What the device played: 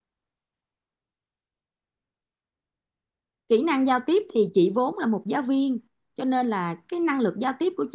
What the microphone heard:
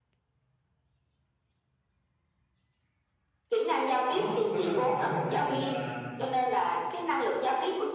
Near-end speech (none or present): present